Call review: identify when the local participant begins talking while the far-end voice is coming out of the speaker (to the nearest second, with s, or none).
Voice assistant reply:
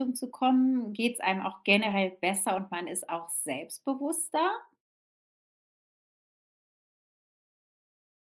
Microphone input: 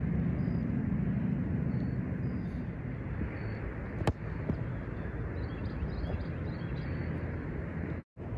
none